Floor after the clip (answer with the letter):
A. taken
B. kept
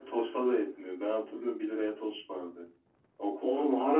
A